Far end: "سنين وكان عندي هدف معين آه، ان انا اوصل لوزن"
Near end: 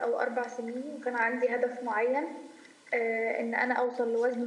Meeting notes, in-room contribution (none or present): none